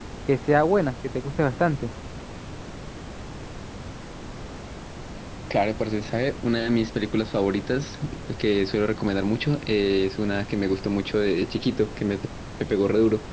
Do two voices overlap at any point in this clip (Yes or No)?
No